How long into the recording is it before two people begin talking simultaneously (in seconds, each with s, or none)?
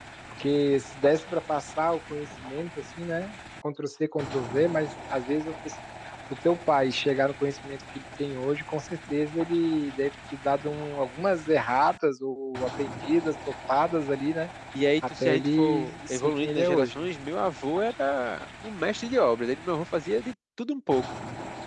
15.2 s